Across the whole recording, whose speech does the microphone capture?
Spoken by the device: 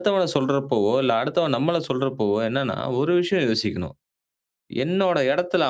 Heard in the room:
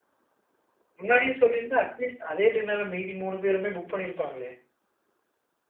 user only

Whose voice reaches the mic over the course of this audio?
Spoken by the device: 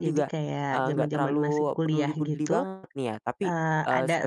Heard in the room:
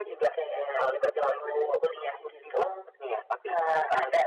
echo only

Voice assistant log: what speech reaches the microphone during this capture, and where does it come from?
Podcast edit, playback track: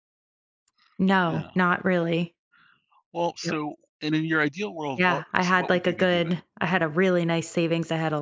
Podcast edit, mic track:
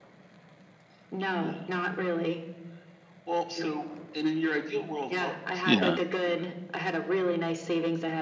both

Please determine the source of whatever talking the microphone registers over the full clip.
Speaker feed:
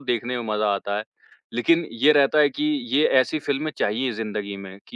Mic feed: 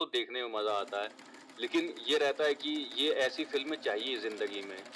echo only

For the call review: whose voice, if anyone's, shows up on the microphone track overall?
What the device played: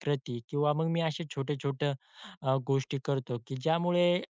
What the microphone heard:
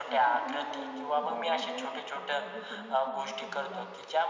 both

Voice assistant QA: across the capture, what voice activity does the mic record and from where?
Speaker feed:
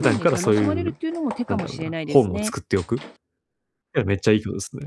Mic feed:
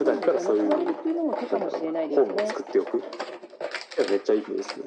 echo only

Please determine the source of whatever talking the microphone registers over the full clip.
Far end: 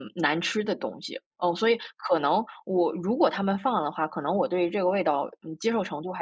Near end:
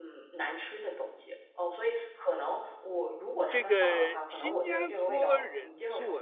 both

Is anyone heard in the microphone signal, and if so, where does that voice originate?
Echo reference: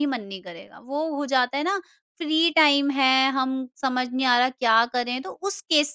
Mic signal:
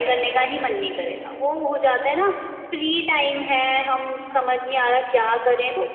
echo only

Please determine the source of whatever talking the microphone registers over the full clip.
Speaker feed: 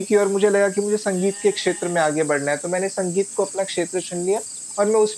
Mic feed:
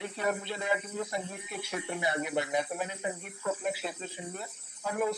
echo only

